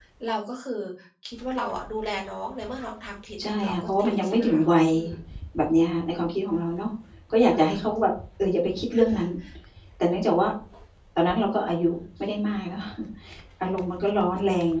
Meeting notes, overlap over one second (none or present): present